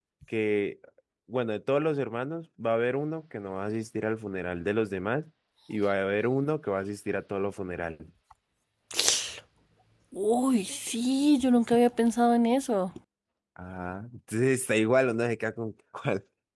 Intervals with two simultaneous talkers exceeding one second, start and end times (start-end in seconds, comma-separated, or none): none